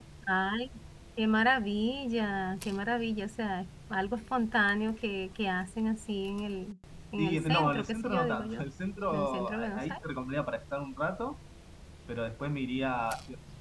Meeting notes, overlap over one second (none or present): present